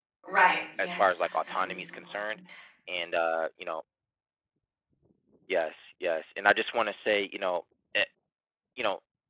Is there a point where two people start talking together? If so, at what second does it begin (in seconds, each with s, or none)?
0.8 s